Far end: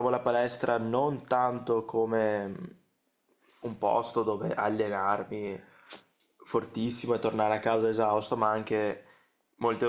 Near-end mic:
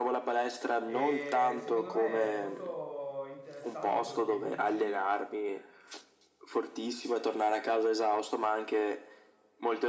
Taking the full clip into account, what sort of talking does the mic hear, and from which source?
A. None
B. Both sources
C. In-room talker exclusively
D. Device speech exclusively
B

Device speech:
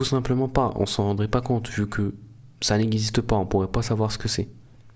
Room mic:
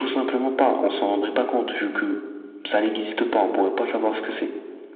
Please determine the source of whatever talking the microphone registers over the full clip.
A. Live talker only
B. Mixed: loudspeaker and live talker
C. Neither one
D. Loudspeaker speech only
D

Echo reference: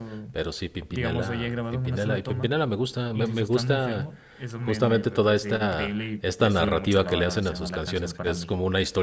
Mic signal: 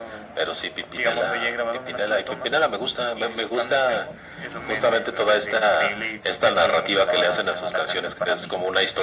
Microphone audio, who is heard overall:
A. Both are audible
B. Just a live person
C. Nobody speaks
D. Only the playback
D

